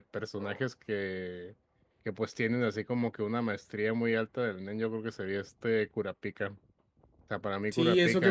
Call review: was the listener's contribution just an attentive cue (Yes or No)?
No